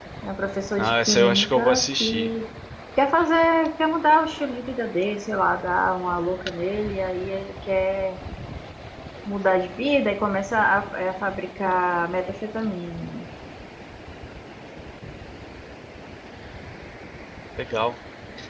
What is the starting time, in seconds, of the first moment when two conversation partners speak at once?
1 s

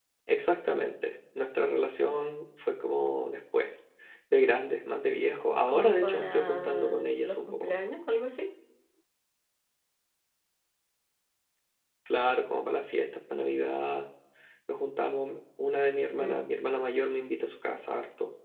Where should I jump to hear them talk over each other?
6 s

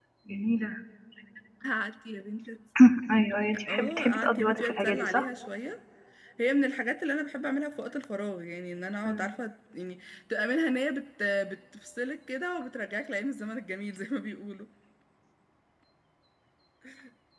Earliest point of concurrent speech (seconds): 4 s

